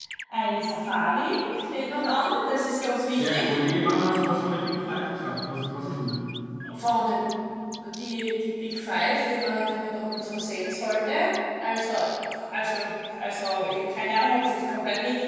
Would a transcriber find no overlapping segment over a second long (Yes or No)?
Yes